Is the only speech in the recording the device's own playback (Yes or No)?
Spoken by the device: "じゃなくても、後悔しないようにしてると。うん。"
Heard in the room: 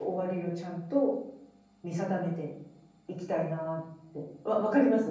No